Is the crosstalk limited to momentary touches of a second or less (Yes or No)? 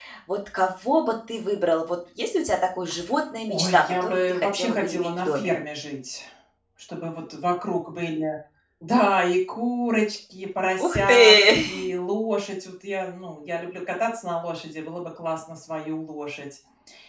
No